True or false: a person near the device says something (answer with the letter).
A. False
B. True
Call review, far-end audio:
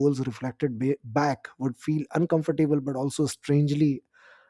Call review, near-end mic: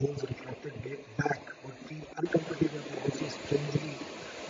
A